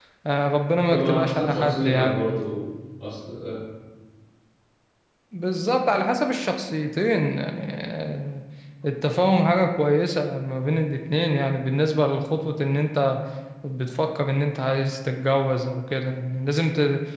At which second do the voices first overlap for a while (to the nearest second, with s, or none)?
1 s